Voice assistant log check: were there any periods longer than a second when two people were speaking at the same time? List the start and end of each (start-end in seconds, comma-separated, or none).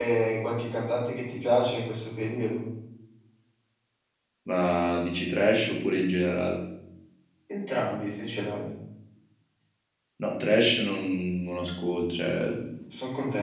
none